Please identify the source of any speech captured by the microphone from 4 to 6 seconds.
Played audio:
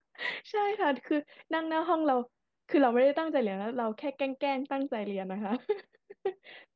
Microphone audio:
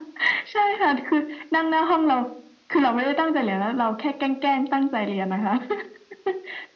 echo only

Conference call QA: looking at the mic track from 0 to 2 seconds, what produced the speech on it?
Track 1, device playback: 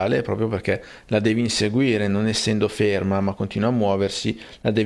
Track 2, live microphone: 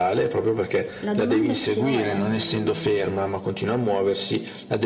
both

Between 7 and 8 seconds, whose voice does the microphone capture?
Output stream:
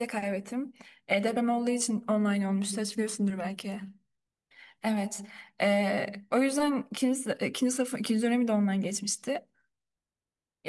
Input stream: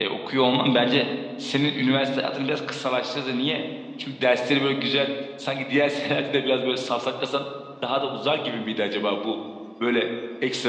user only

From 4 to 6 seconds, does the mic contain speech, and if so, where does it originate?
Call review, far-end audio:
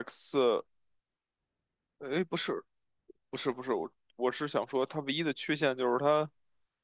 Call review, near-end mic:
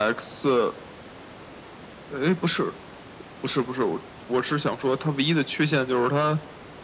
echo only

